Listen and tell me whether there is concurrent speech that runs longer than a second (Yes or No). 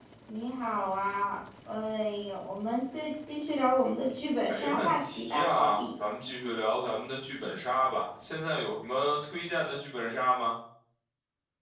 Yes